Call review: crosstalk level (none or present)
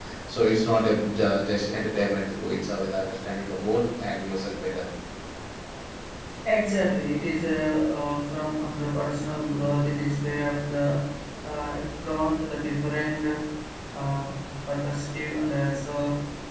none